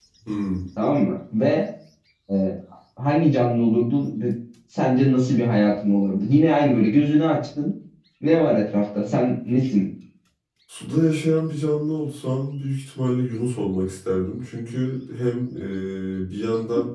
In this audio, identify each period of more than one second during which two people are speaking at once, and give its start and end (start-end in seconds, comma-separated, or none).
none